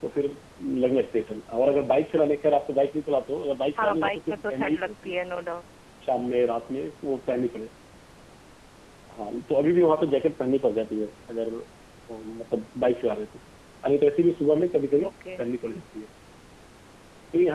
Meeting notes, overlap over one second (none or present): present